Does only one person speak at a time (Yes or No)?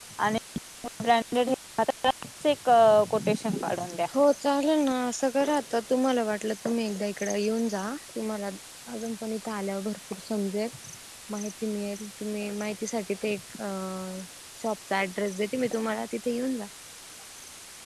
Yes